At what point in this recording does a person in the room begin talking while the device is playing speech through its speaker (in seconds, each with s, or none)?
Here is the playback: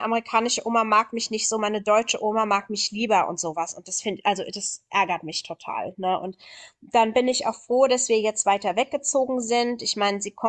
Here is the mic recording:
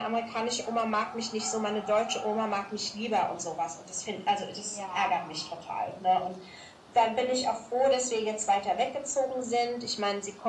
4.6 s